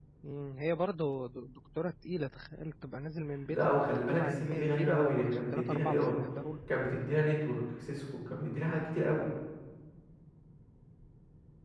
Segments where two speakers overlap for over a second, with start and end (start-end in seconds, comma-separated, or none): 3.5-6.2